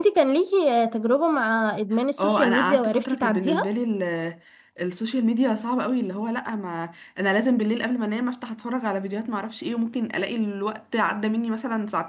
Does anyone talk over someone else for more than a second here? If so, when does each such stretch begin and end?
2.2-3.7

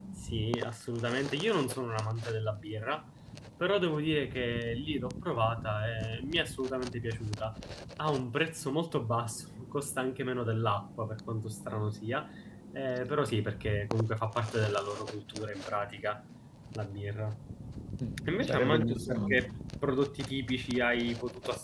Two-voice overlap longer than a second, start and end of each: 18.3-19.5

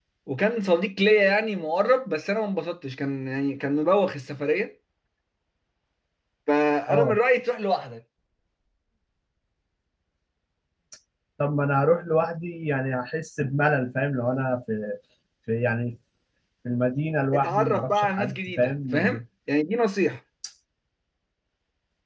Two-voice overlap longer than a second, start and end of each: 17.3-19.0

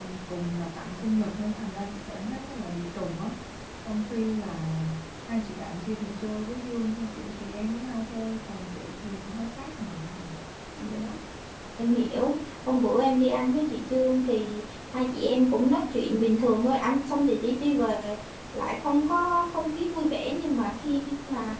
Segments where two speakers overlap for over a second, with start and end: none

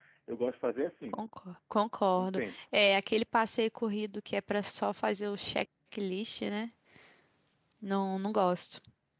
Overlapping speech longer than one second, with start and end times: none

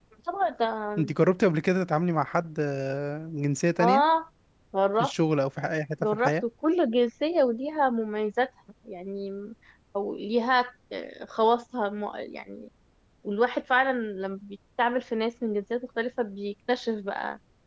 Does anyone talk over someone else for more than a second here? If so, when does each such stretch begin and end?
none

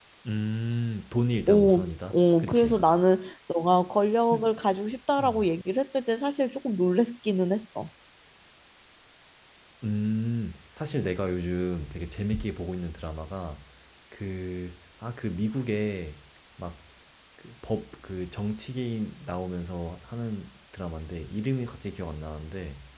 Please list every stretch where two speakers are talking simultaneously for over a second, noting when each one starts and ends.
1.5-2.8

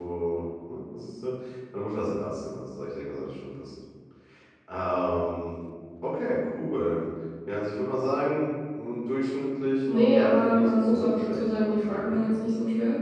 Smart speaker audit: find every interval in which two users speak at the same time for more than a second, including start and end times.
9.9-12.2

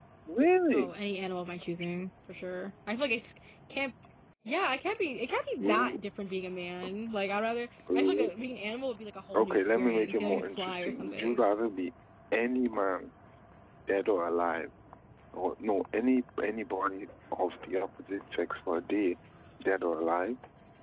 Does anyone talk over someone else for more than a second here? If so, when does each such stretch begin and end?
9.3-11.4

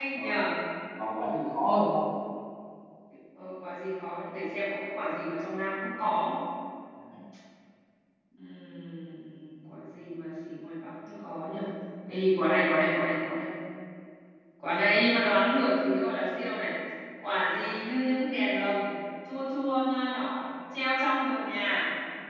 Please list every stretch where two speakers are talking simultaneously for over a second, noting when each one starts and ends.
none

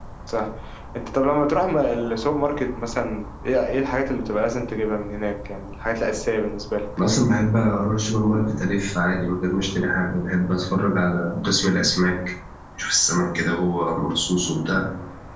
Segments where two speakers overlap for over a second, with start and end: none

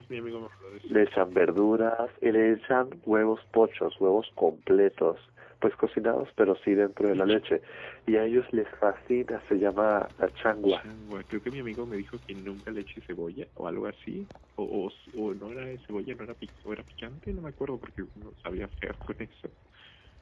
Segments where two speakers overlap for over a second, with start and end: none

